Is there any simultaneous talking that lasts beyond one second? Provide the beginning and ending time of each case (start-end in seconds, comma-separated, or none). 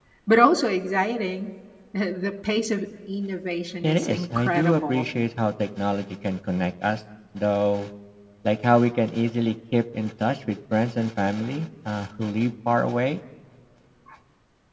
3.8-5.0